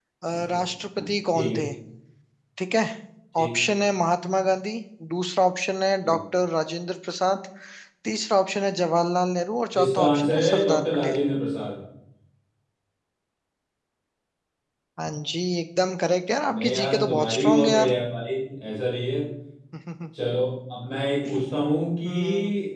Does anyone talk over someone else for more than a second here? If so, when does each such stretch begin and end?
9.8-11.2, 16.5-17.9

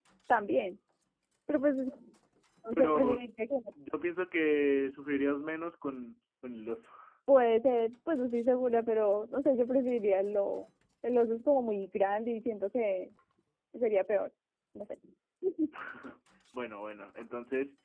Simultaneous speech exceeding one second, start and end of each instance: none

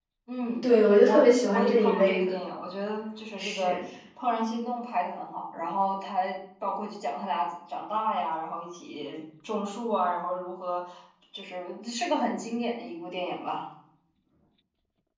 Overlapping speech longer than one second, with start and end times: 1.0-2.3

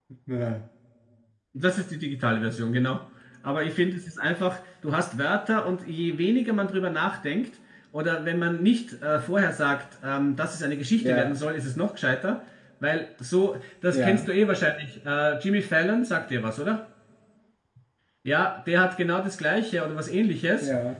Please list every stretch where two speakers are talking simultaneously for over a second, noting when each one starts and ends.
none

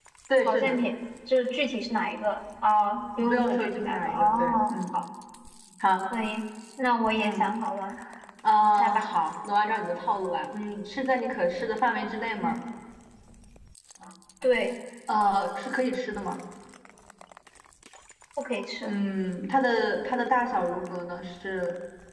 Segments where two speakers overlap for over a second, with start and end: 3.2-4.8

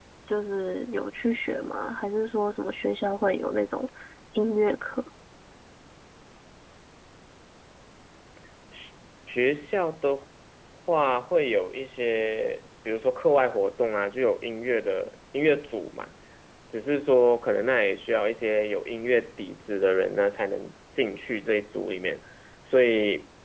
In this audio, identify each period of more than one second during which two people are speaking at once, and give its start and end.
none

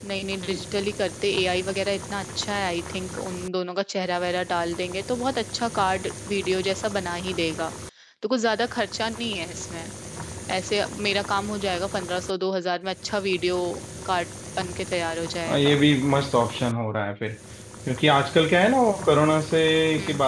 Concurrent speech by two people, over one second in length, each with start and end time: none

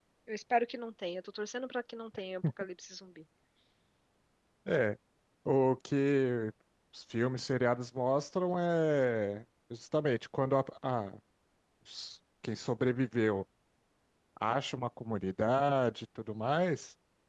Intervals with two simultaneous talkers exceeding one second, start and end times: none

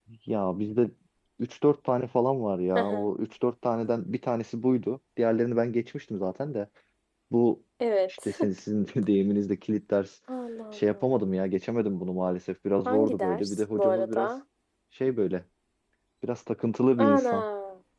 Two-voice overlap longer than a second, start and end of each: 12.8-14.3

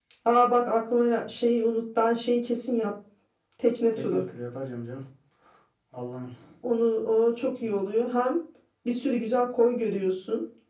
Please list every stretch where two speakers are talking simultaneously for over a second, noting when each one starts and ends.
none

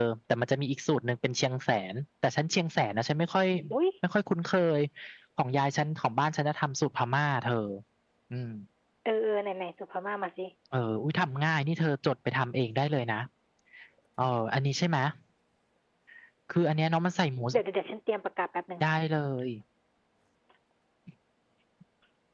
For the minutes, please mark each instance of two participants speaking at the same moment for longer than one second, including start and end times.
none

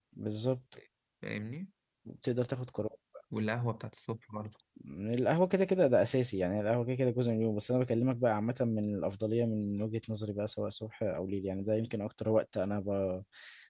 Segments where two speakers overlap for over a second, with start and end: none

